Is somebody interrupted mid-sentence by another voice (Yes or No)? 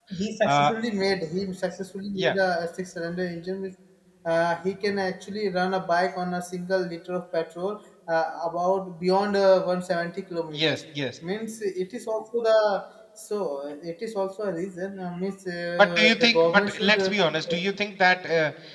Yes